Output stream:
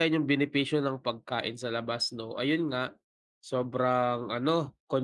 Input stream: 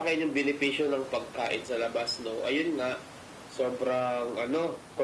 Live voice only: none

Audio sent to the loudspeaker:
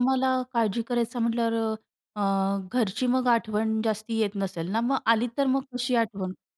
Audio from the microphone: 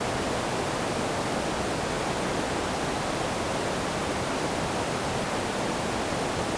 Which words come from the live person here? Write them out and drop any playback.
none

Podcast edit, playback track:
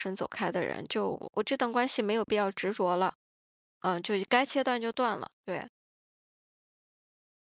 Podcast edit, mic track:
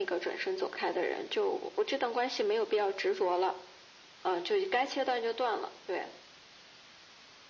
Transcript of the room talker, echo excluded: none

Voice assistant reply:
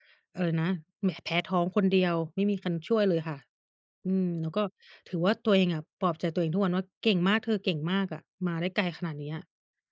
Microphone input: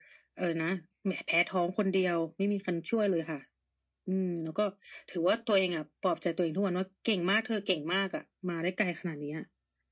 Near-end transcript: none

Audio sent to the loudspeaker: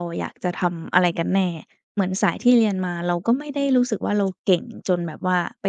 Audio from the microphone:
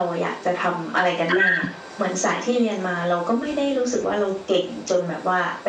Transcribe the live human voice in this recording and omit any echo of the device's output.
อา

